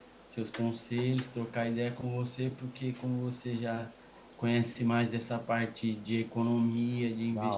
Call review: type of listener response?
listening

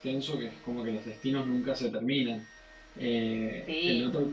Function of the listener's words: taking over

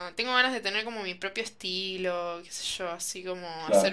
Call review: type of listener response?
listening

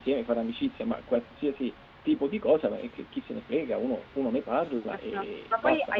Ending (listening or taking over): taking over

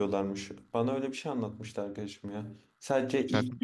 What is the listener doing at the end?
taking over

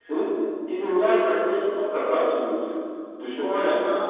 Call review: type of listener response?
listening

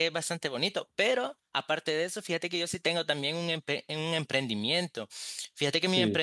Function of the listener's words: listening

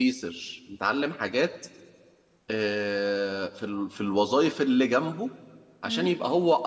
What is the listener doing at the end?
listening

